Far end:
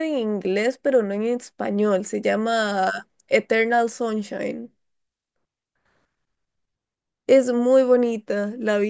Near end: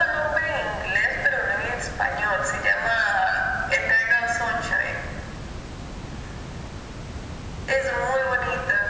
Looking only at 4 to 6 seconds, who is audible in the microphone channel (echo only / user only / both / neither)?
echo only